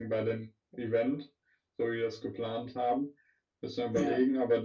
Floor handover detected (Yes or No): No